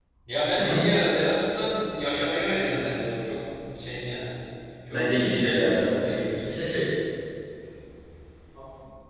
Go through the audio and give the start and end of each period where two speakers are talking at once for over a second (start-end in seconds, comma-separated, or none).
4.9-6.5